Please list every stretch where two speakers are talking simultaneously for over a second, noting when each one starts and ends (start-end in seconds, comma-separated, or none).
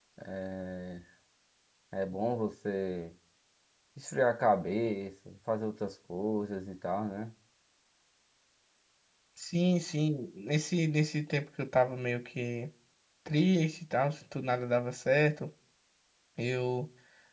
none